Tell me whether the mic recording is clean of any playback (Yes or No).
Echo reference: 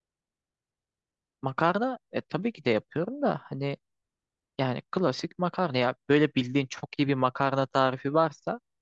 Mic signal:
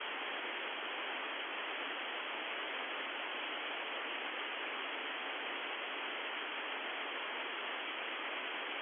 Yes